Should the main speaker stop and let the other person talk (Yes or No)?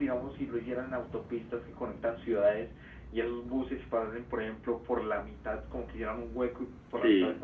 No